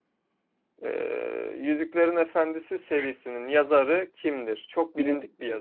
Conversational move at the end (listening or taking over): taking over